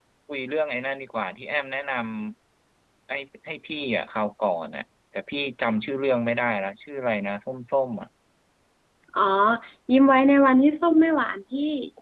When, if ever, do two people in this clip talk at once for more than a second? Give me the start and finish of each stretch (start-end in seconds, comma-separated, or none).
none